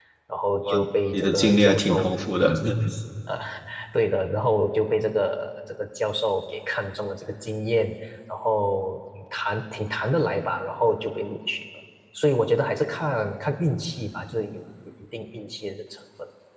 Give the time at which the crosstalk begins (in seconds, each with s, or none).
0.6 s